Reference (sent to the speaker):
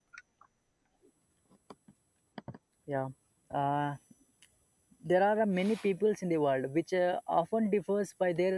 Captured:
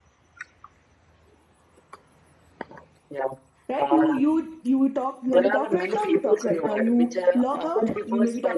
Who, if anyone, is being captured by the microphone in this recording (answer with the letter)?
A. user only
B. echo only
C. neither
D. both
D